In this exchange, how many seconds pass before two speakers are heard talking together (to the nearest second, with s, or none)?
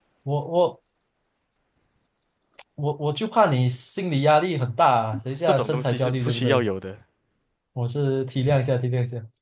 5 s